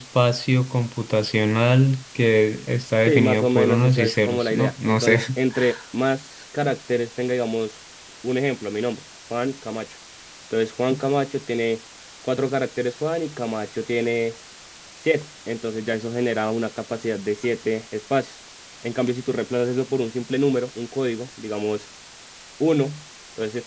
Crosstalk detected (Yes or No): Yes